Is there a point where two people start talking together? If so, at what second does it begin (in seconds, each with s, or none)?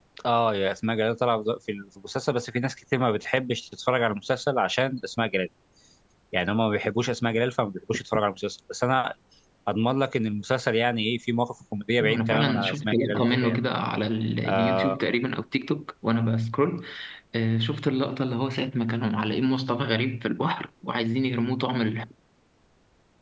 12.0 s